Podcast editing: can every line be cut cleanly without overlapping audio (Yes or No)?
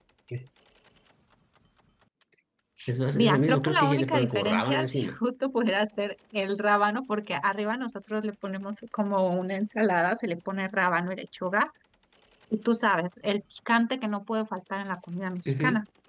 No